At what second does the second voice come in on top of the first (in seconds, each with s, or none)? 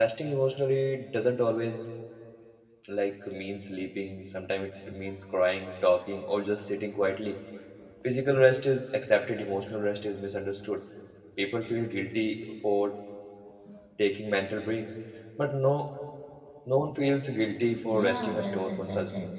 17.9 s